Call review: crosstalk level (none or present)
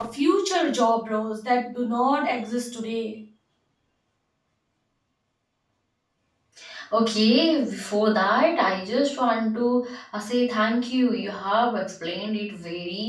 none